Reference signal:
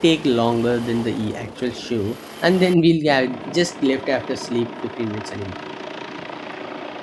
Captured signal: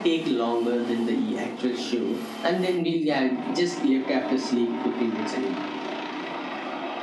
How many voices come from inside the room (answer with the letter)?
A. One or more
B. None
B